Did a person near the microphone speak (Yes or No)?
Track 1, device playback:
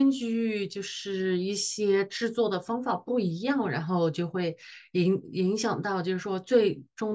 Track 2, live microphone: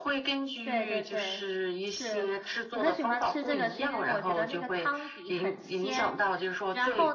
Yes